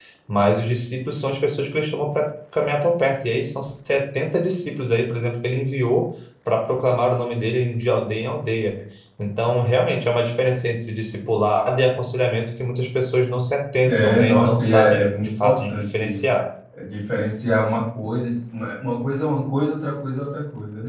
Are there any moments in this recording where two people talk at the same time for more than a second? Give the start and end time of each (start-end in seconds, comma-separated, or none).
13.9-16.2